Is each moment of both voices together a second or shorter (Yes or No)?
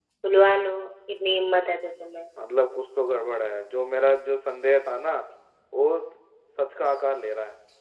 Yes